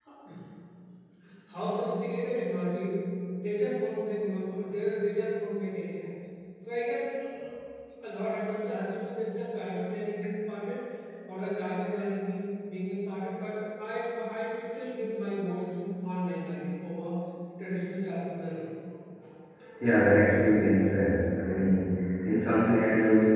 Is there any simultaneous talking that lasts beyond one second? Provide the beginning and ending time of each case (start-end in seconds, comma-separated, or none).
none